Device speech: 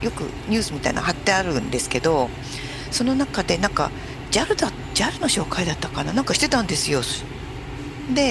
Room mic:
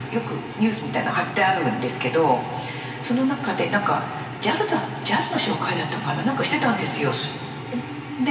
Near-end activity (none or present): present